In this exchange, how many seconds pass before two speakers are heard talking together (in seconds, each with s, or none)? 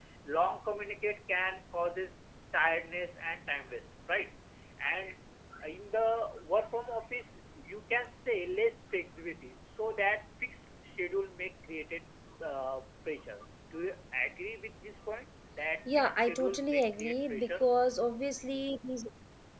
15.9 s